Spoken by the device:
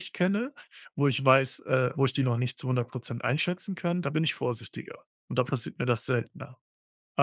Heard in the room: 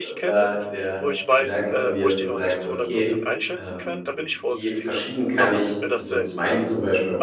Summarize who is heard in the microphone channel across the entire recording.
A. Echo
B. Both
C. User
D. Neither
B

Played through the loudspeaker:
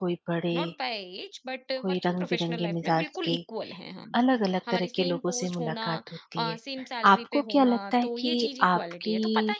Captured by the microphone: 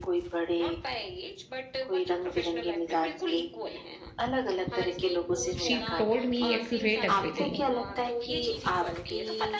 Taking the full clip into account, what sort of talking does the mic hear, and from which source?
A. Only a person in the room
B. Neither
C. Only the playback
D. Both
D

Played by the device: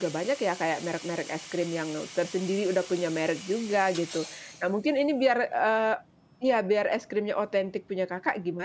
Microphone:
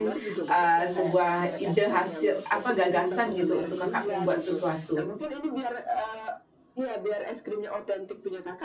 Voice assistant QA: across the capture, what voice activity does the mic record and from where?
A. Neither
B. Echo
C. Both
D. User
C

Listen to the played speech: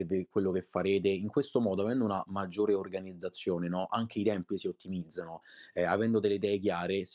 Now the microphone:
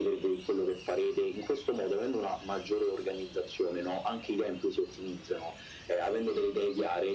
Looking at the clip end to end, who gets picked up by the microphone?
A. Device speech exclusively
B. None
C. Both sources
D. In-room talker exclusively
A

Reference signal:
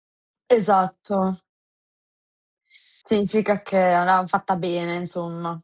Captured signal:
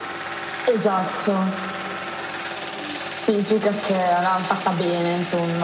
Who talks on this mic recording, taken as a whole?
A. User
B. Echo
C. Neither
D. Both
B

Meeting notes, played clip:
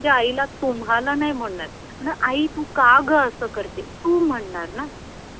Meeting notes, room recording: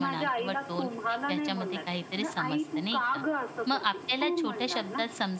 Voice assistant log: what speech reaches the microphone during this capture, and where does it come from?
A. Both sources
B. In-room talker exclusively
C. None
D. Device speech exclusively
A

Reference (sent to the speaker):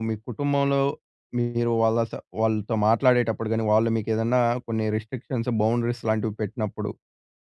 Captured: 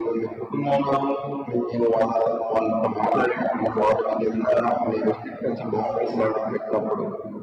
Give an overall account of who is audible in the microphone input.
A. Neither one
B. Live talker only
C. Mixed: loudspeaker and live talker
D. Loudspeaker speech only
D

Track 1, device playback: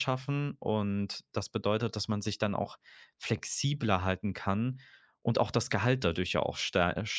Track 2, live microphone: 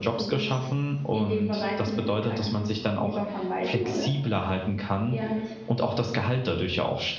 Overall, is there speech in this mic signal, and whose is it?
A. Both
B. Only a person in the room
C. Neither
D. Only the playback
A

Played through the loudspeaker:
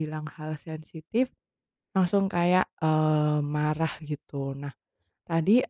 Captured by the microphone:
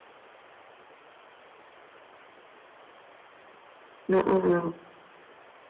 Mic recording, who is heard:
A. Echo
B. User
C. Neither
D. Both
B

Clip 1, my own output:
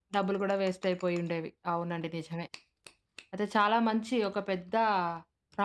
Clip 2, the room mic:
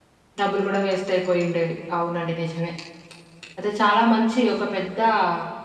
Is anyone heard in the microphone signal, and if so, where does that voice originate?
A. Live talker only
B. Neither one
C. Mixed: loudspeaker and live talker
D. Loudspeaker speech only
D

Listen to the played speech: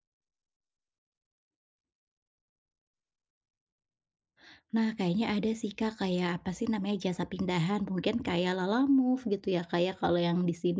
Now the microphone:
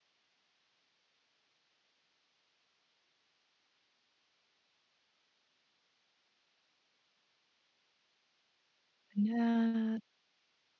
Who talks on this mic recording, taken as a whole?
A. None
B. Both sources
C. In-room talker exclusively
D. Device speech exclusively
C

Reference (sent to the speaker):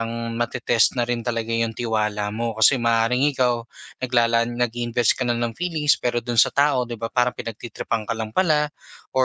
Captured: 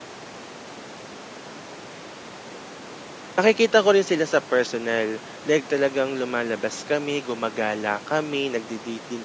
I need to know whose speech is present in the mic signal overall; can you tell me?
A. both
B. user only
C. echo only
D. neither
B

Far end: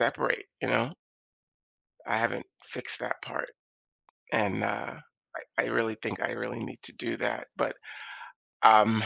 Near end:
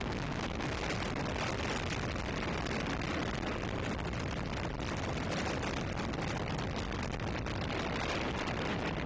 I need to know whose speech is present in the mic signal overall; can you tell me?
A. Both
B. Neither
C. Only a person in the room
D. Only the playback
B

